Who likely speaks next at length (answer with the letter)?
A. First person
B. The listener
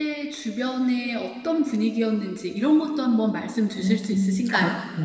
B